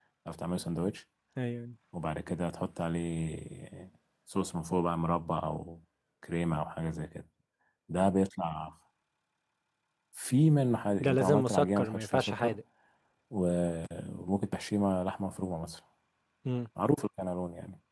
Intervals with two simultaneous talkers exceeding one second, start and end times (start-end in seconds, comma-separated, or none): 11.0-12.6